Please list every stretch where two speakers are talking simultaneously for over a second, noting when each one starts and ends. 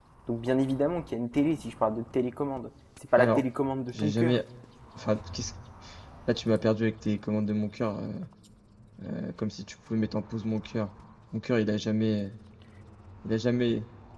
none

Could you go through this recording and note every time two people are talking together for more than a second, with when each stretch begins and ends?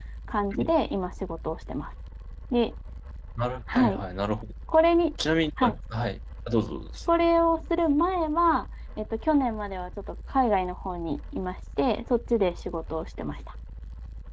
none

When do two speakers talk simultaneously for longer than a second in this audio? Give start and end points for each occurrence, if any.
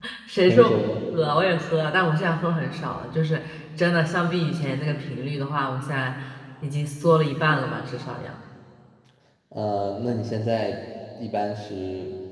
none

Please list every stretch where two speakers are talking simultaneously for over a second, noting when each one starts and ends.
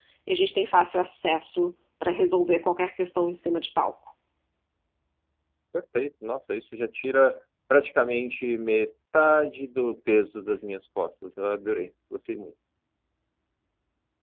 none

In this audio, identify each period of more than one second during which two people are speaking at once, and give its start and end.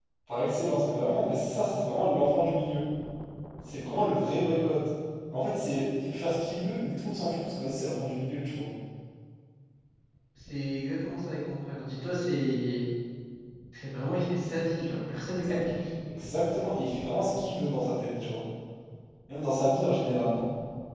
none

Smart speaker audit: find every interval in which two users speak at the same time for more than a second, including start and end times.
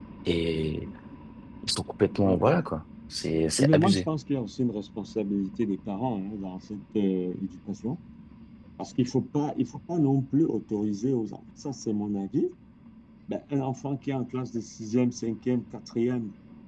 none

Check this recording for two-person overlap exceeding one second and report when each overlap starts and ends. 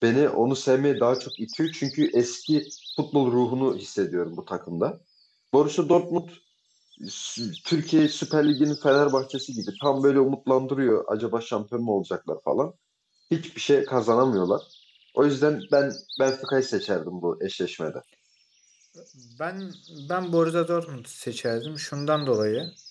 none

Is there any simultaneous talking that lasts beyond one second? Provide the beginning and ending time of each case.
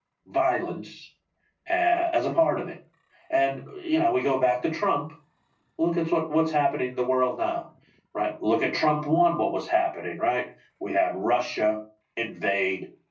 none

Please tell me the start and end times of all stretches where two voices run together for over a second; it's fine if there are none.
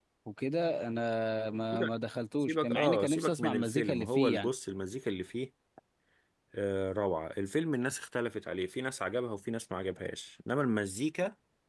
2.4-4.5

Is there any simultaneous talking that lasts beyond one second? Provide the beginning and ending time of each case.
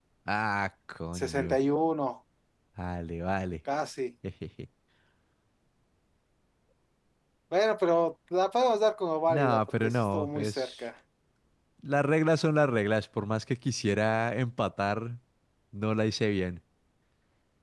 9.3-10.8

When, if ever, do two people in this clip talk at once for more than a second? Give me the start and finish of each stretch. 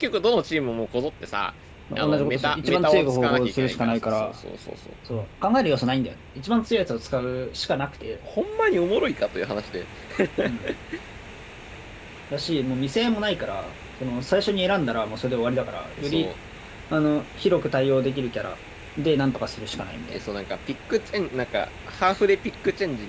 1.9-4.3

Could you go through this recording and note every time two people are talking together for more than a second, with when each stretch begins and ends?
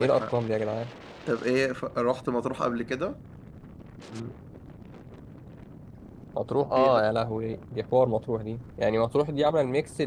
none

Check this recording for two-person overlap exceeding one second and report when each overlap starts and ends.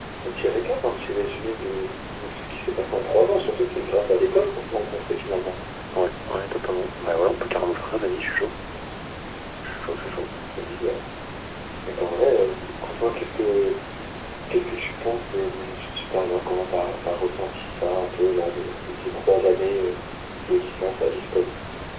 none

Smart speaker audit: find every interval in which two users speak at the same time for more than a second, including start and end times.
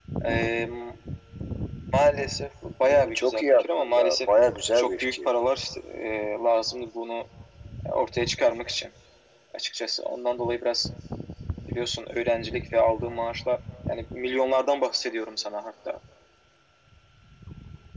2.9-4.2

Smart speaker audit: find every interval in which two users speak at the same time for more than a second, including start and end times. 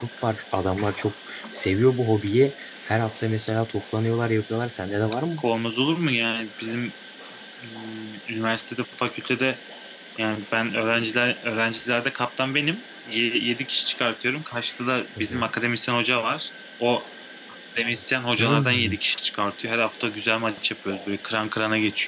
none

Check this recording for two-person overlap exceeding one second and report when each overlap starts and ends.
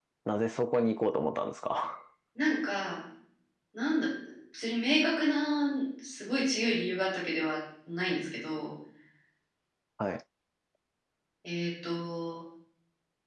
none

